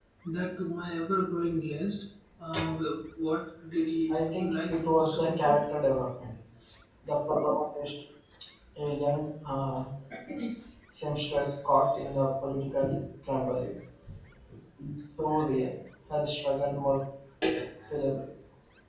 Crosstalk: present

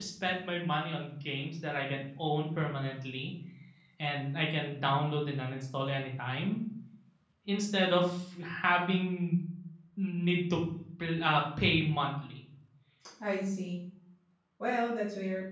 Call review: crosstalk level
none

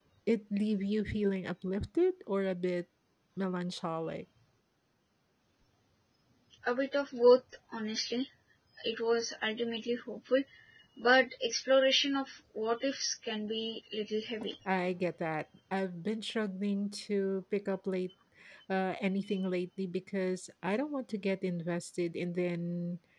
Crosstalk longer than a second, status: none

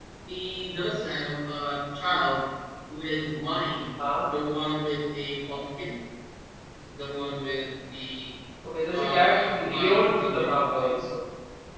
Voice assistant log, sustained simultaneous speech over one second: present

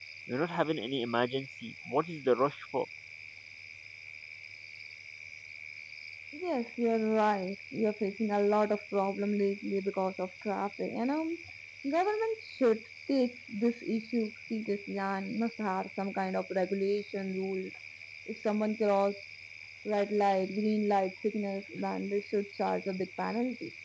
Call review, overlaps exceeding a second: none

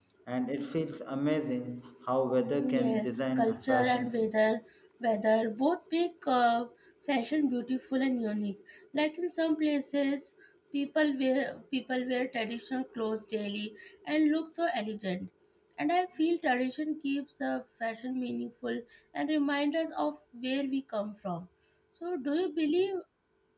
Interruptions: present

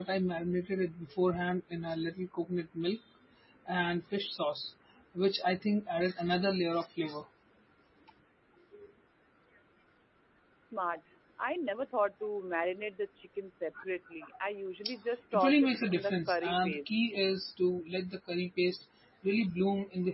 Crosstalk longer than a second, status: present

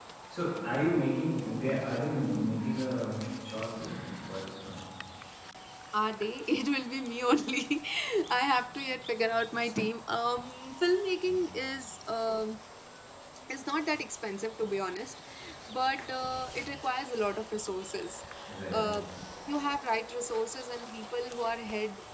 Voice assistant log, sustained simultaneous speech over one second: none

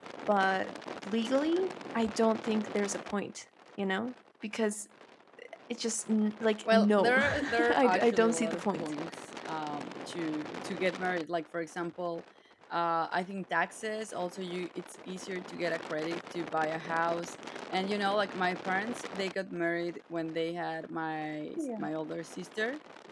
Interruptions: present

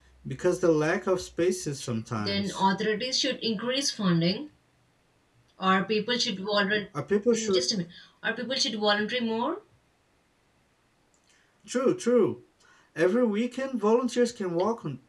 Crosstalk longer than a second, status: none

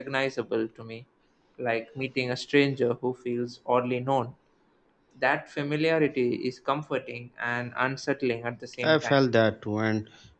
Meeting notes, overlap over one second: none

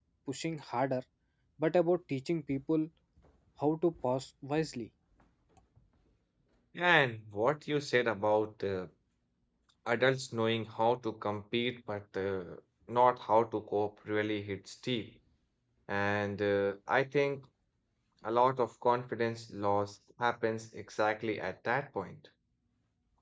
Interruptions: none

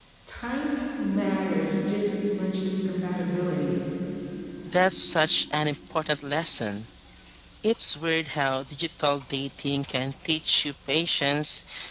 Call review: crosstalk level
none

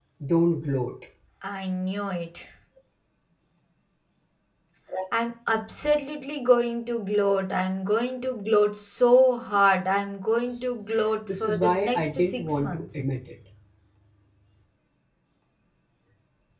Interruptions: present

